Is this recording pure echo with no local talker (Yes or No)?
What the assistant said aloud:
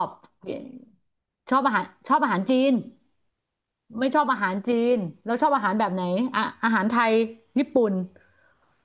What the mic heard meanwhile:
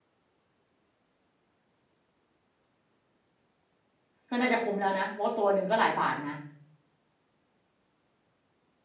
No